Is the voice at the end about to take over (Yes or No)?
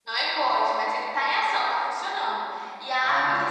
No